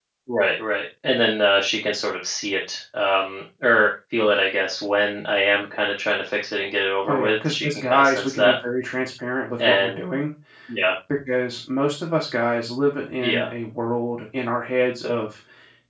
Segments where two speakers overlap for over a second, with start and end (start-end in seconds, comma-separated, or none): 7.1-8.5